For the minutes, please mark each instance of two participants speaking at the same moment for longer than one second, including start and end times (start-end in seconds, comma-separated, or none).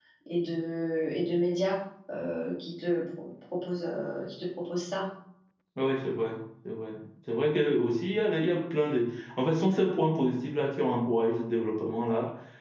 none